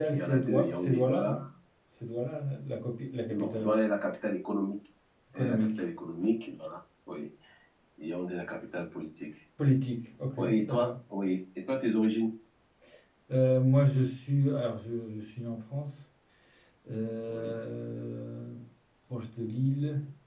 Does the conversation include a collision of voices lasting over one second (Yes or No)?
Yes